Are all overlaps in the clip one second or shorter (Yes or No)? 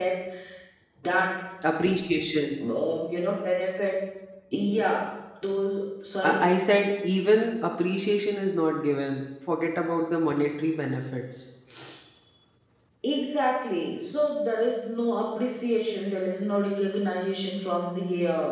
Yes